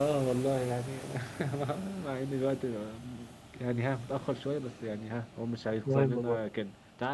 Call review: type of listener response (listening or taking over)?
listening